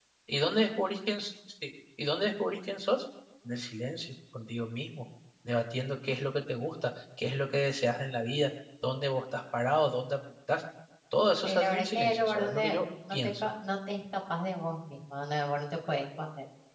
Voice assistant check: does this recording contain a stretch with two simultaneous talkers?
Yes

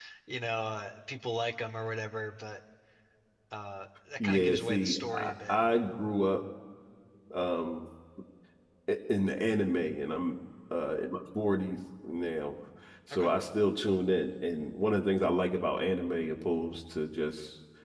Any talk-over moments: Yes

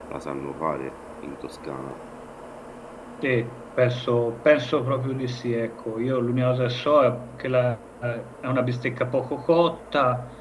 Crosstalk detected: No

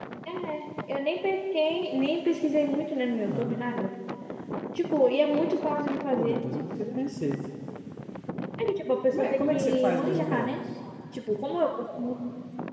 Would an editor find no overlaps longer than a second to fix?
No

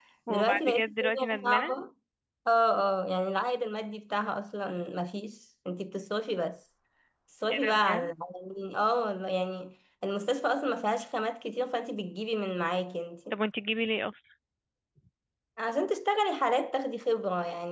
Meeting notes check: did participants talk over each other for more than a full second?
Yes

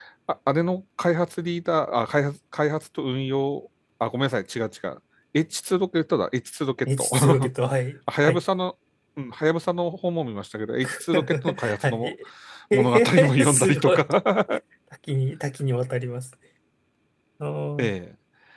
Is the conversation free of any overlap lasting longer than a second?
No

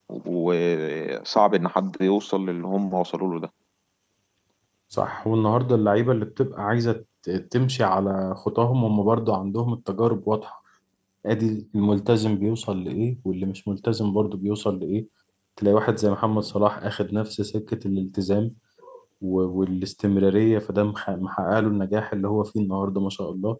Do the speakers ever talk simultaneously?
No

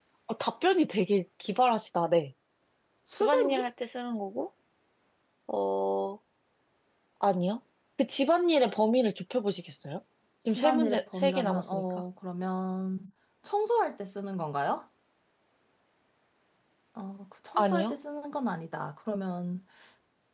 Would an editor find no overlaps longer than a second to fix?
No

